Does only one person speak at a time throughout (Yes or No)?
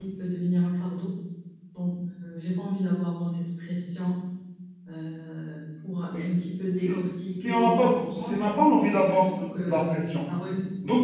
No